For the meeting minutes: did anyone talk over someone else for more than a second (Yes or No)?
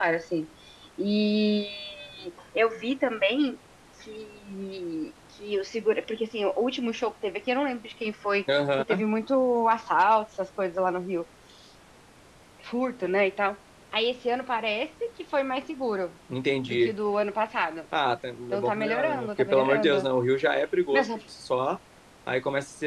Yes